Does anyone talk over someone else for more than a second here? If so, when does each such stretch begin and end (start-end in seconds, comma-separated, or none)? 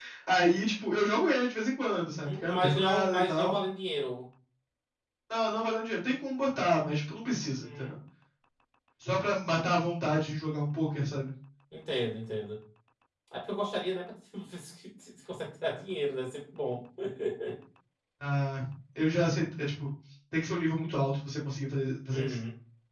2.1-3.5